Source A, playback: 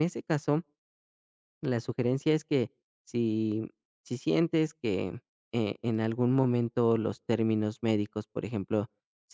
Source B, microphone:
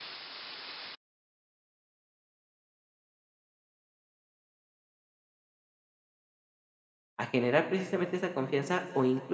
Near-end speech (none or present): present